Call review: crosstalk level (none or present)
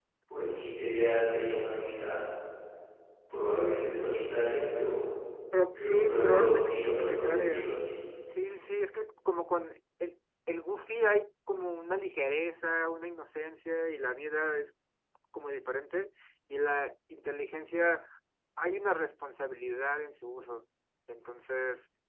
present